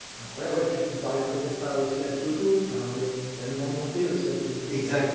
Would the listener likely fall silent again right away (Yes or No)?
No